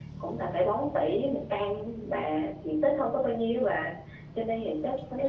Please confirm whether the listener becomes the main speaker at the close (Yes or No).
No